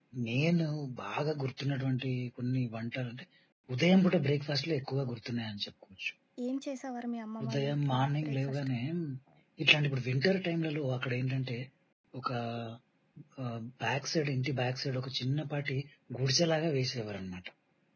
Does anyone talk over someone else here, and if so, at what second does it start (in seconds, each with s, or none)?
7.4 s